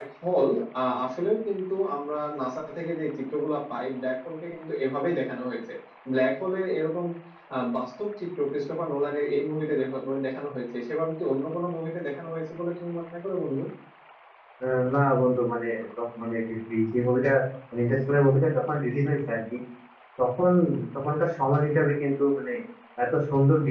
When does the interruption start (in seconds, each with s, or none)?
none